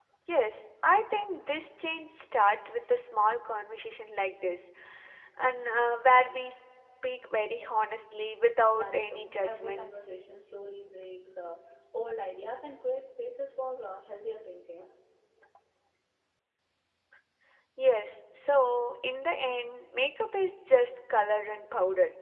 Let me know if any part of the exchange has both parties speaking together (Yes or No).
Yes